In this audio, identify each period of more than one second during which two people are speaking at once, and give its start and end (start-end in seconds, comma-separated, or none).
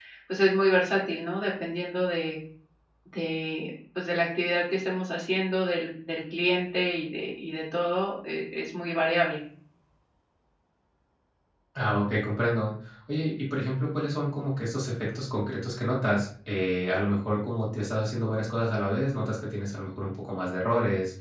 none